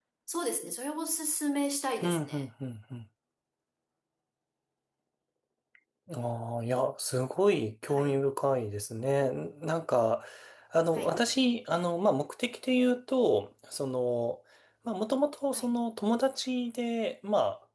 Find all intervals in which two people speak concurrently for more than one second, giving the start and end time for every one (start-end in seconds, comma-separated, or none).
none